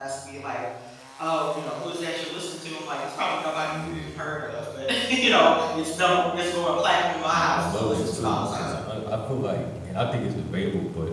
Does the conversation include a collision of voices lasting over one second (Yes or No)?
Yes